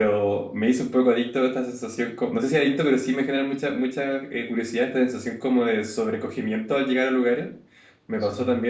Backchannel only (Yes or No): Yes